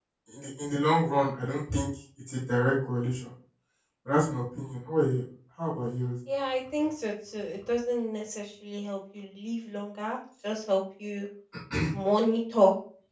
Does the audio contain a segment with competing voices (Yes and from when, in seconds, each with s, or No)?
No